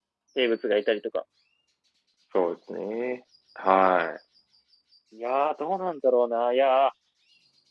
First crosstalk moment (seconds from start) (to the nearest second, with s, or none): none